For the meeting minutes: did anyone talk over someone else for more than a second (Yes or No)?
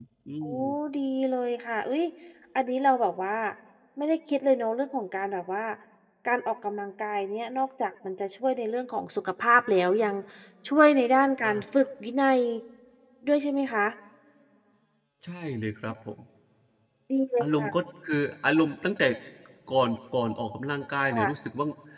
No